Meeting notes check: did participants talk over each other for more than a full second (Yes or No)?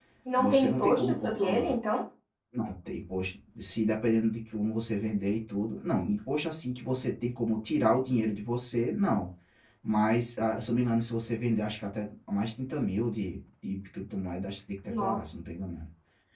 Yes